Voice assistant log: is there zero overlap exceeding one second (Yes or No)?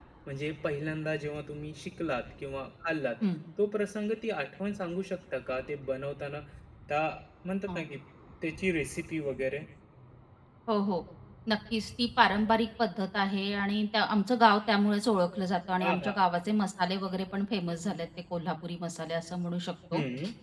Yes